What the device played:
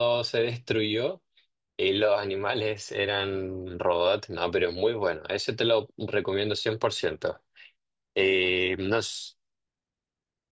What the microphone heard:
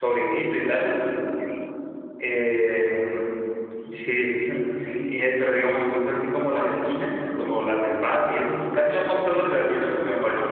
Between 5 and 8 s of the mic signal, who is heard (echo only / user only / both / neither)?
user only